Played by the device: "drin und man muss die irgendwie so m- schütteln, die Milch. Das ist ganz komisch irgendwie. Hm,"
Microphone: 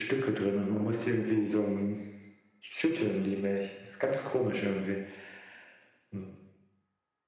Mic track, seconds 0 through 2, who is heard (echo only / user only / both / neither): echo only